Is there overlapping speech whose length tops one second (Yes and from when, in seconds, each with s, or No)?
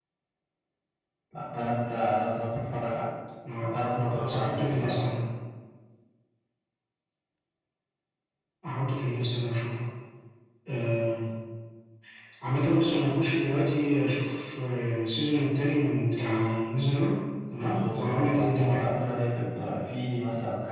Yes, from 3.7 s